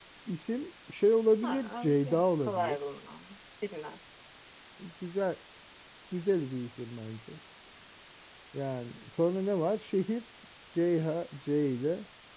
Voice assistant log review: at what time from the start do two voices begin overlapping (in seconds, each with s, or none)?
1.4 s